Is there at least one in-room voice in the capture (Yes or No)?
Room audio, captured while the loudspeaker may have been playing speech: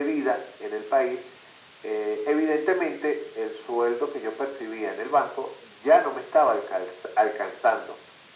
No